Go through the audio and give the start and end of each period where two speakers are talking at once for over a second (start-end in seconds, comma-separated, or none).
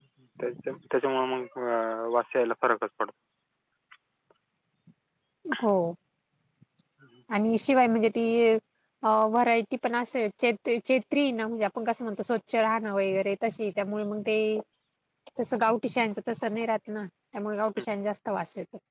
none